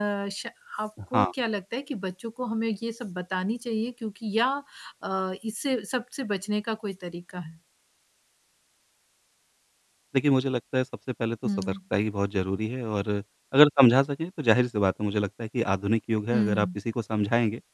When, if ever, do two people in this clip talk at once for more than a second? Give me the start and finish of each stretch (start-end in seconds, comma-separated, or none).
none